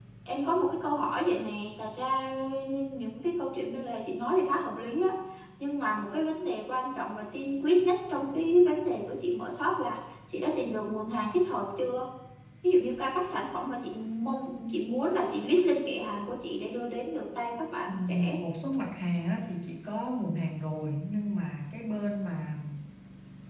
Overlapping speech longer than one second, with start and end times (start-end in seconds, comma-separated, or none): none